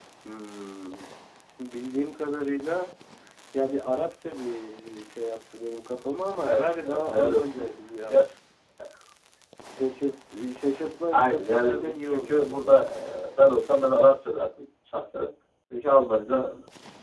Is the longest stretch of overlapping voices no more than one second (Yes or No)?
No